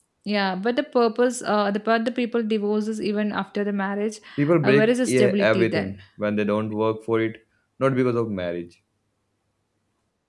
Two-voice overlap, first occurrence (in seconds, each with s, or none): 4.6 s